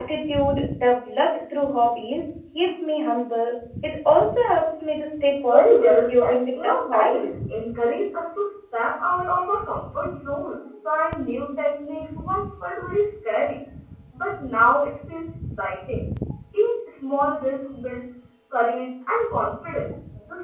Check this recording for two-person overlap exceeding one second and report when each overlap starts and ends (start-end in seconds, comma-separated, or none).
5.5-7.3